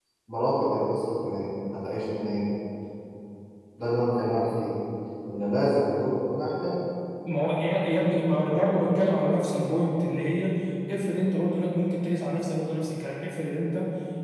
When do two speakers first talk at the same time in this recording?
none

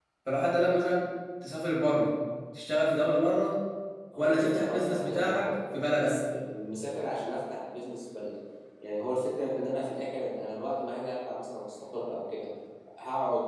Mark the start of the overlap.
4.2 s

